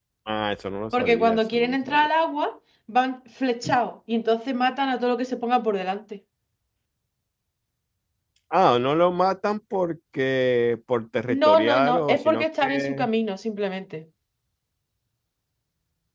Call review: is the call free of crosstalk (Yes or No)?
No